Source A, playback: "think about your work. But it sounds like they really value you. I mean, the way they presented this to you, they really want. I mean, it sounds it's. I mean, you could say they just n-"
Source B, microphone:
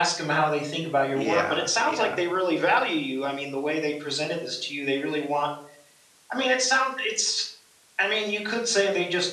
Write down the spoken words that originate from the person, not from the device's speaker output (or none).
Yeah. Yeah.